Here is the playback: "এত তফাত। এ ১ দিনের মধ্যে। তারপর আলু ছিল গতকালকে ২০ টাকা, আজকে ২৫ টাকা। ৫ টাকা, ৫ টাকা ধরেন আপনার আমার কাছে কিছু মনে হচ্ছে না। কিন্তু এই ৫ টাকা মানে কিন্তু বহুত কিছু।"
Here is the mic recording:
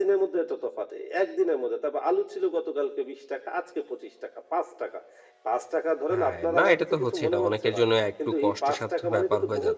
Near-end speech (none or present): present